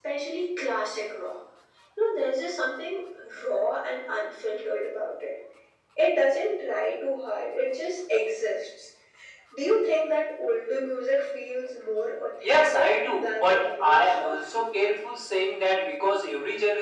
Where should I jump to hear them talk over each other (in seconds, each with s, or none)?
12.4 s